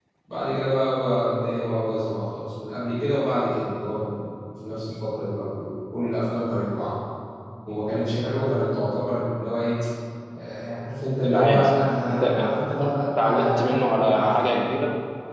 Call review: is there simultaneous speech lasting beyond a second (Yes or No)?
Yes